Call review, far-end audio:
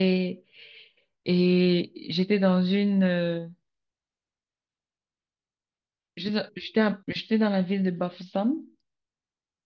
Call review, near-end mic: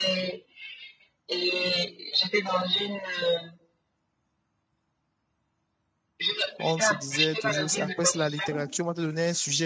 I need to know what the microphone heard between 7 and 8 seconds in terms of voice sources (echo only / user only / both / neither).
both